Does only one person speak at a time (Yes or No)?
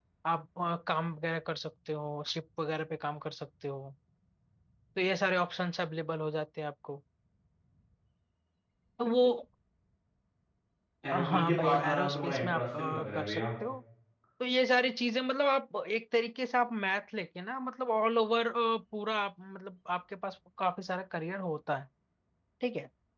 No